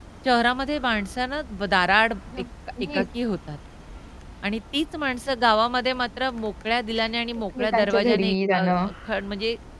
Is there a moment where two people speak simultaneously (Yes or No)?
Yes